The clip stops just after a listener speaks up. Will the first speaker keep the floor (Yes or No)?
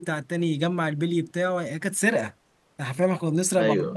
Yes